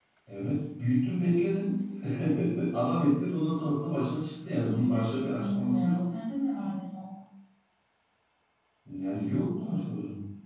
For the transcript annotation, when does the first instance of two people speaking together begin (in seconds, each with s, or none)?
4.7 s